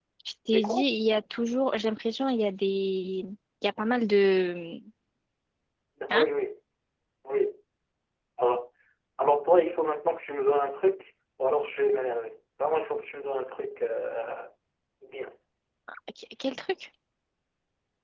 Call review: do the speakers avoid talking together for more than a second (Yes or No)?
Yes